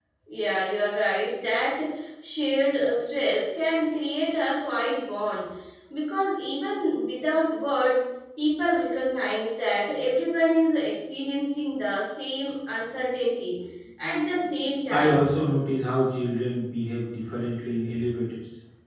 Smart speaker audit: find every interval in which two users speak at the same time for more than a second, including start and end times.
none

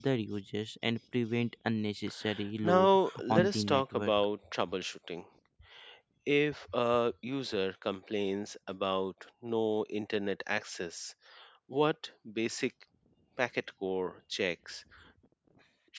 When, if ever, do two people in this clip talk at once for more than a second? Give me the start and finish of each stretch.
2.6-4.2

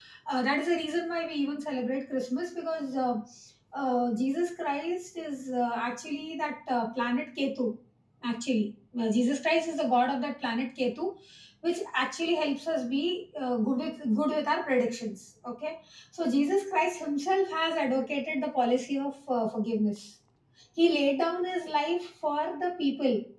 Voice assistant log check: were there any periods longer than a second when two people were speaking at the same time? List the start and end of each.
none

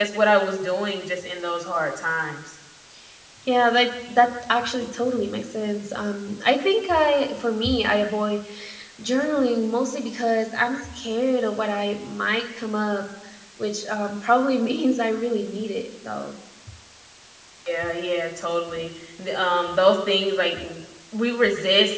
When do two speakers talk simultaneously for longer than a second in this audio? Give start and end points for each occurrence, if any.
none

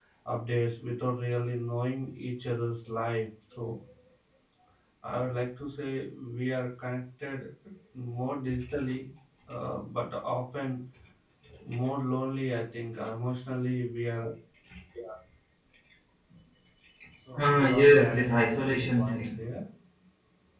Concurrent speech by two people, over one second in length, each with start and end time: 17.4-19.4

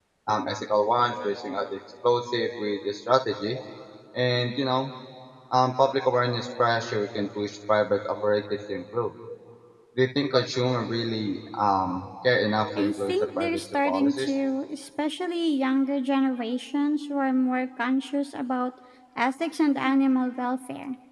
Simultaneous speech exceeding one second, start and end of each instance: 12.8-14.3

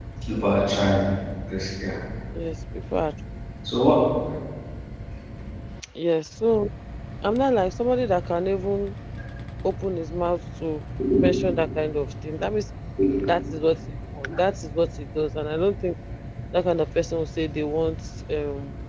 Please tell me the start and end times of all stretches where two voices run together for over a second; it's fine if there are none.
none

